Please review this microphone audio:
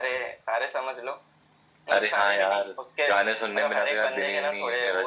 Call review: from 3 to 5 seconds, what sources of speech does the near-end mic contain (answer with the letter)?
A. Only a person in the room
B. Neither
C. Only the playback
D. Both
C